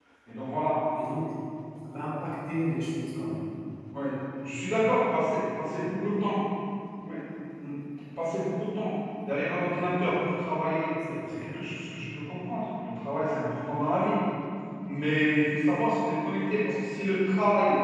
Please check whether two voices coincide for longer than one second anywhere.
No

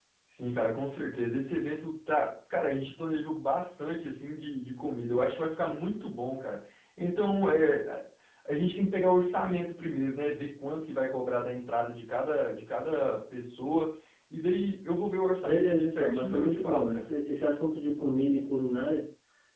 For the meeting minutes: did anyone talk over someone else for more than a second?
Yes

